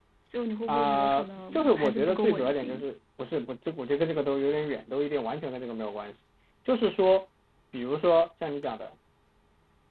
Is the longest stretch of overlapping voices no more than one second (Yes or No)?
No